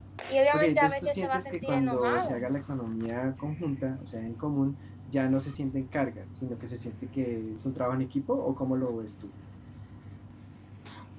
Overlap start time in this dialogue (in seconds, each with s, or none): 0.5 s